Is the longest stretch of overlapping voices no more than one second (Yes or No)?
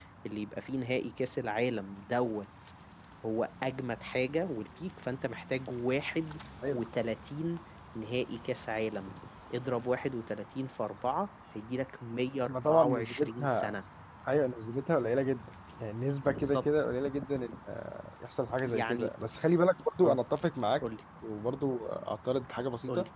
No